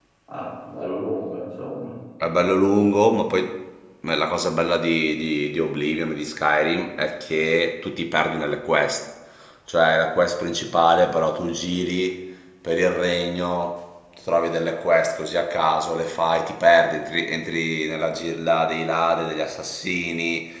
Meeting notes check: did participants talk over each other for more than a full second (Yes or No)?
No